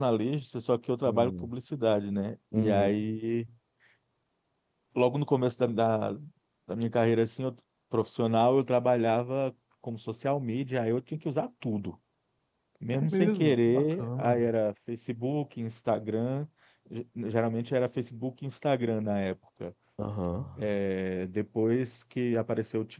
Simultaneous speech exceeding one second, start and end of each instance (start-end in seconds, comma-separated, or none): 12.9-14.4